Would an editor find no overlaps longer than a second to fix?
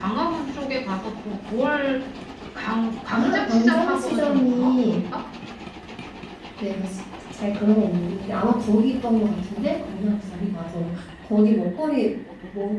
No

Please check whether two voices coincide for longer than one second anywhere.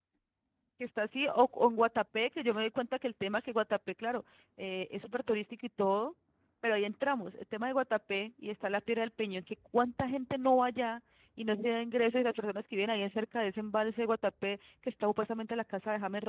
No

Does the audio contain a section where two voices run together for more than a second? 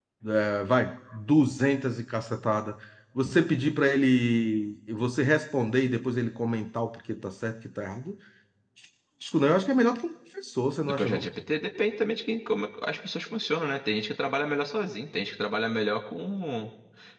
No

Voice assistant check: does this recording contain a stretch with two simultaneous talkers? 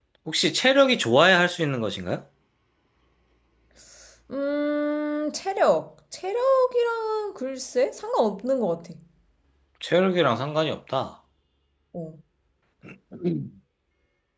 No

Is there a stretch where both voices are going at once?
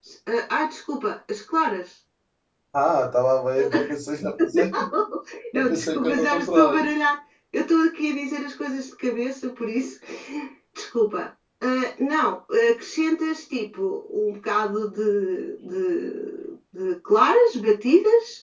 Yes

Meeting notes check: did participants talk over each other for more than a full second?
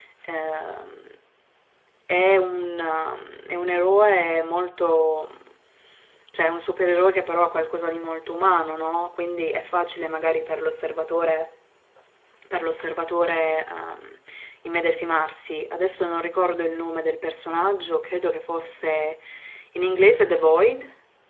No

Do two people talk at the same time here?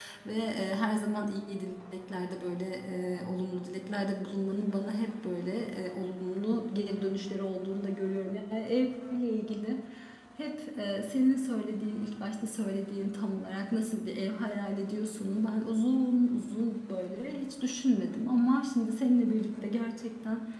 No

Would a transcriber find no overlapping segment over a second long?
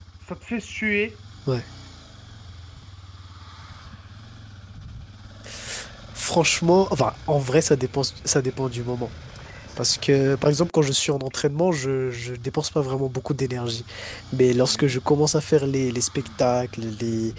Yes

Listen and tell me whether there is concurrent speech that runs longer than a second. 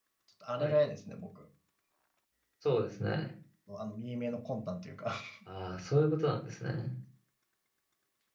No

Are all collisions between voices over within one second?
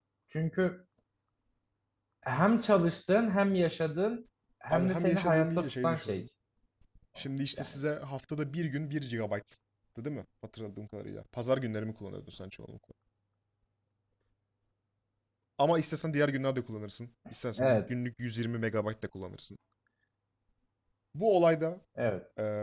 No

